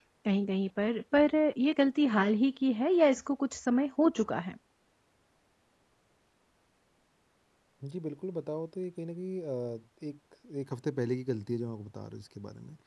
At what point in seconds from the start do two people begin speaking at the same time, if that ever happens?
none

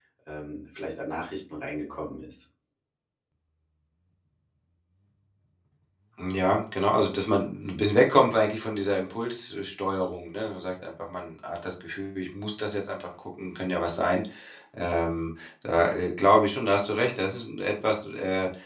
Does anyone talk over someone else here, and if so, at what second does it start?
none

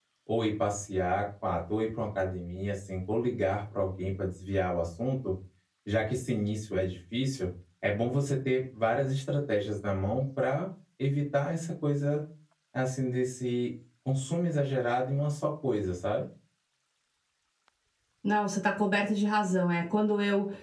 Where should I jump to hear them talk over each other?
none

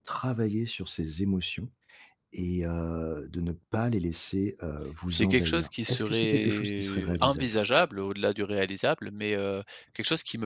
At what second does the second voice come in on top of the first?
5.1 s

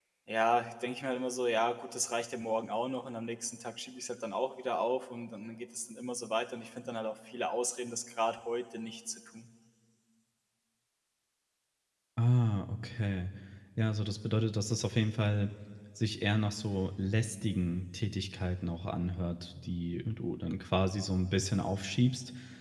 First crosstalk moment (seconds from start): none

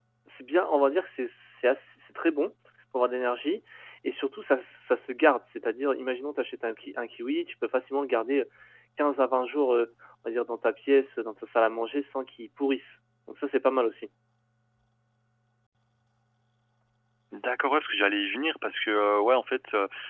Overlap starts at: none

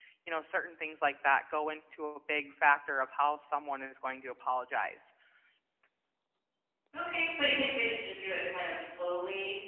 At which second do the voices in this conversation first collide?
none

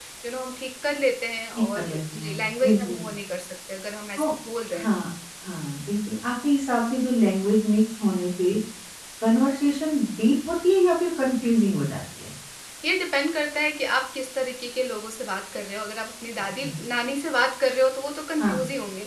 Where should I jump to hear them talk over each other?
1.5 s

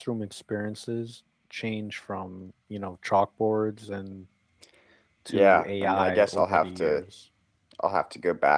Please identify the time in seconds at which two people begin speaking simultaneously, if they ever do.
5.3 s

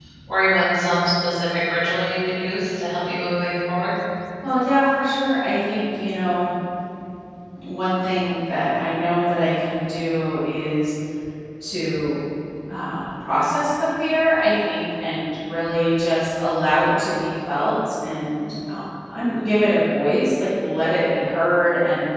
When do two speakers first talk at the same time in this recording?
none

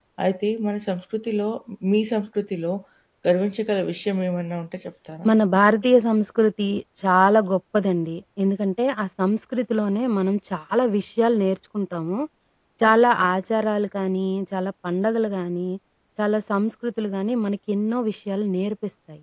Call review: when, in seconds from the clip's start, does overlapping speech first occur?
none

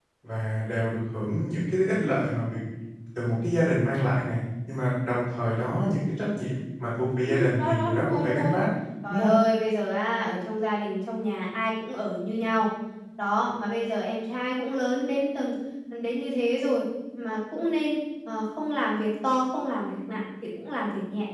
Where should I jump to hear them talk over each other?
7.2 s

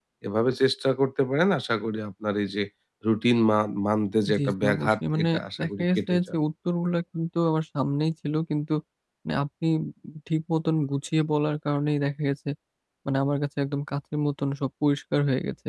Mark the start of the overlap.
4.3 s

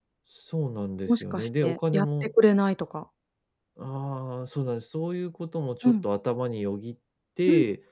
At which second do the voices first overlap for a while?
1.1 s

